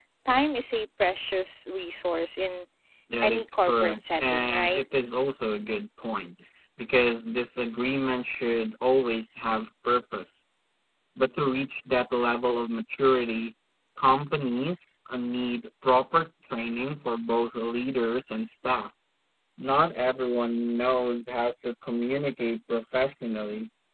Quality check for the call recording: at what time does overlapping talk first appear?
3.2 s

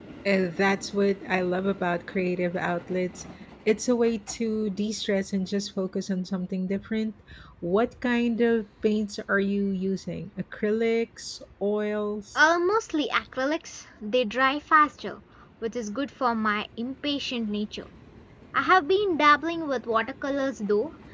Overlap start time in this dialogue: none

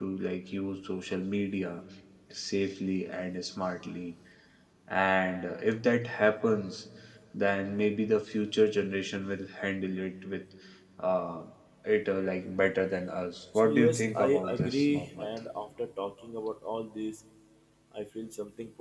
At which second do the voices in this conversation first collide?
13.6 s

